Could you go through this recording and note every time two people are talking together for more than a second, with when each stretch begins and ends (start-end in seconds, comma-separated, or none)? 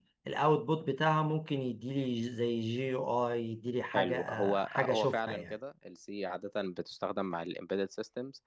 3.9-5.5